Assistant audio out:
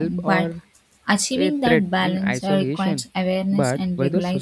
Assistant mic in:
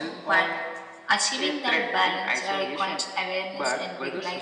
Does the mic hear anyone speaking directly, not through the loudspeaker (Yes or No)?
No